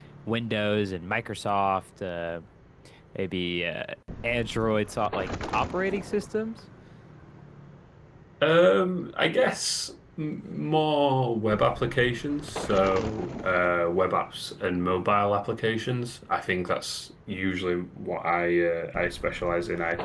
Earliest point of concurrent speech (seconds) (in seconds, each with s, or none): none